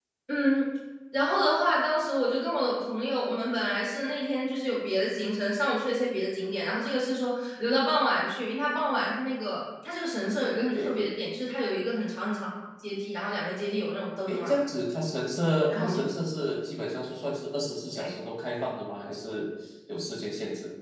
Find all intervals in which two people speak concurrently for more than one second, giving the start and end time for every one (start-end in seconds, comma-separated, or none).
none